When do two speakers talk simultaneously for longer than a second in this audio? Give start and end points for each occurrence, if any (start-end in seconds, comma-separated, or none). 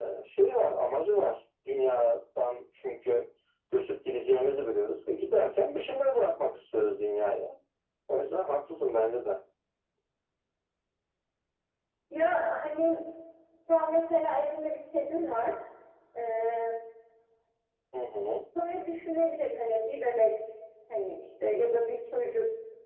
none